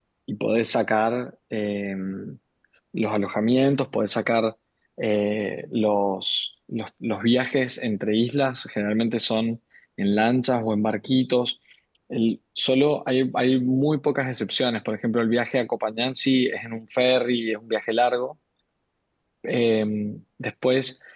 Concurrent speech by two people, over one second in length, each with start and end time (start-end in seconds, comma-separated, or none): none